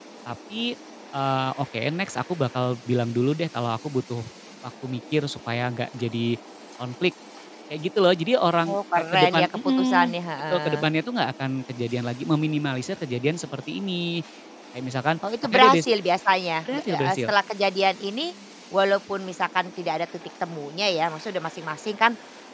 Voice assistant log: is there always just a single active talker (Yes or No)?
No